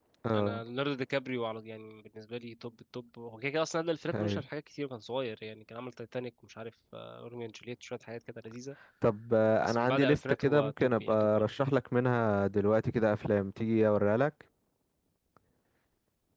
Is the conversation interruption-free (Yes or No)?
No